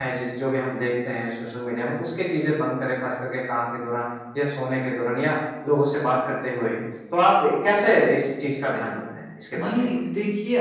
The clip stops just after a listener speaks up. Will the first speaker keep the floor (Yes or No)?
No